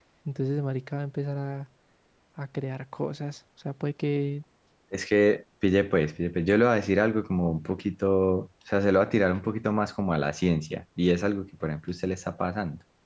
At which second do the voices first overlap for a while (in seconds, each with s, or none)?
none